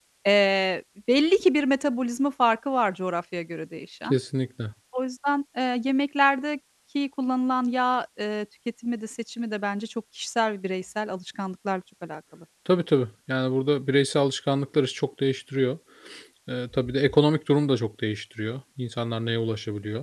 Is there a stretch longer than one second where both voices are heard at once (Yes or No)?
No